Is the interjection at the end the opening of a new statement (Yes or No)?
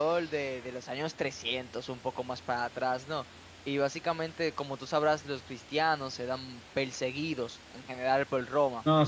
Yes